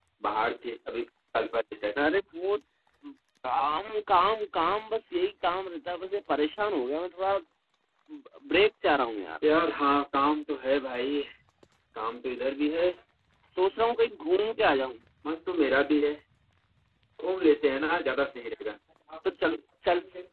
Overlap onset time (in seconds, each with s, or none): none